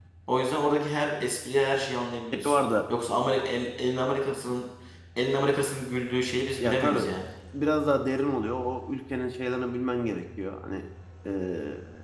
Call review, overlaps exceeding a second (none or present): none